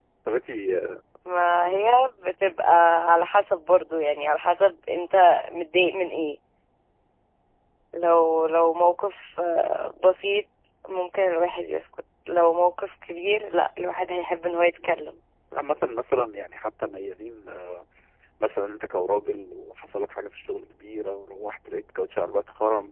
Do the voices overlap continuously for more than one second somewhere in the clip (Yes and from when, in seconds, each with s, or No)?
No